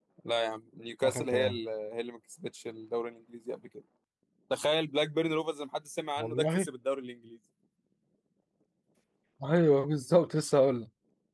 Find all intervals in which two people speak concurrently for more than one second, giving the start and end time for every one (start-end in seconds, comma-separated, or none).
none